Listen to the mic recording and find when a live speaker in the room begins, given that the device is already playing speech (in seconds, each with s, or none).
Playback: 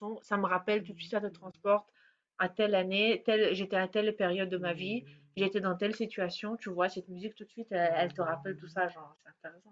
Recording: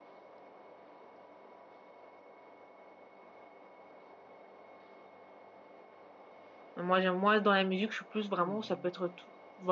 6.8 s